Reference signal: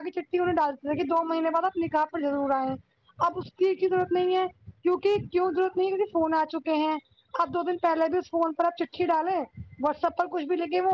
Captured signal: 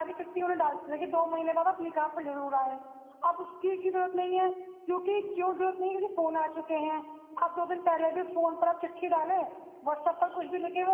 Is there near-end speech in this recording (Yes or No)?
No